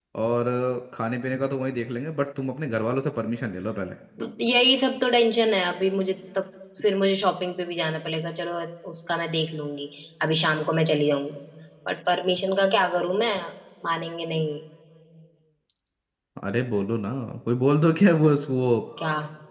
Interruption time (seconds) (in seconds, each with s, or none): none